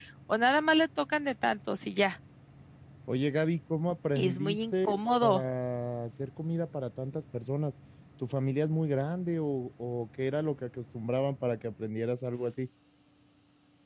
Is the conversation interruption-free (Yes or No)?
No